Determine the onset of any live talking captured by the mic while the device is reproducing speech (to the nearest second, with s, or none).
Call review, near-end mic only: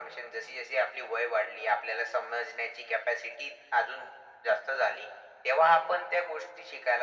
none